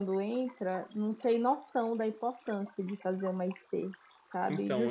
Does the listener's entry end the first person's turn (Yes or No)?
No